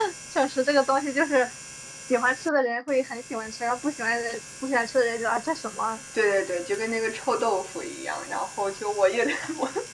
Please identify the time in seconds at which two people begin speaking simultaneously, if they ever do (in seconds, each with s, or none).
none